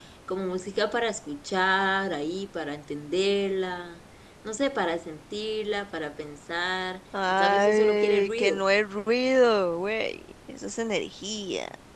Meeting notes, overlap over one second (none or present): present